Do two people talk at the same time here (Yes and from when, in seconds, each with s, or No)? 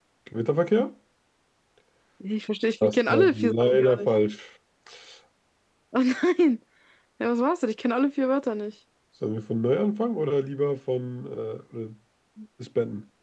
Yes, from 2.8 s